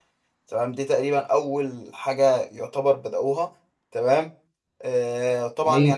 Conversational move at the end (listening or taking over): listening